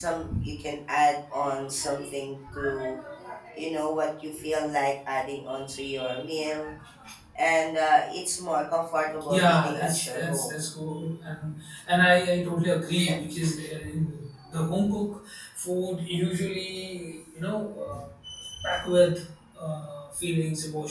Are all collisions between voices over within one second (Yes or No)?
No